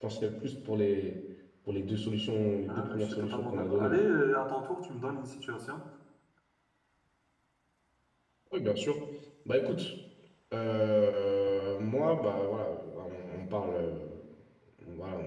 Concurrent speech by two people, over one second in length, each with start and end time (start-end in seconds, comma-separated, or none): 2.7-4.0